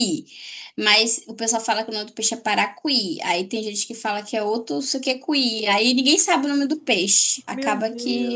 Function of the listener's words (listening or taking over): taking over